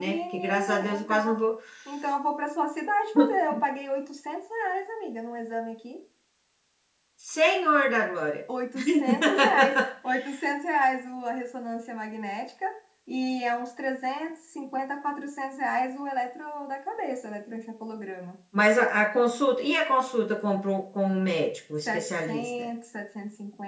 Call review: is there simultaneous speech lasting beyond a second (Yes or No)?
Yes